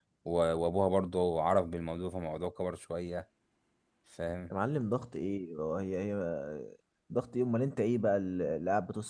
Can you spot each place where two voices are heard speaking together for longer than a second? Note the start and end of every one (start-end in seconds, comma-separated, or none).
none